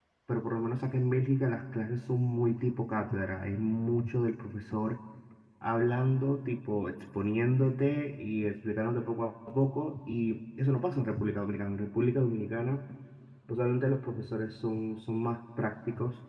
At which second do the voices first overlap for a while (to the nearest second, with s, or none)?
none